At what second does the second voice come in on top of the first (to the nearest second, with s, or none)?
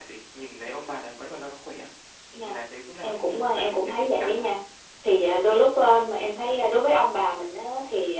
3 s